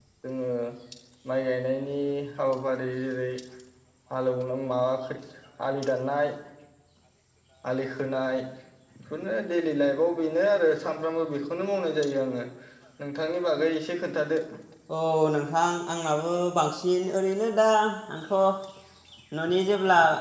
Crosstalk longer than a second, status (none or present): none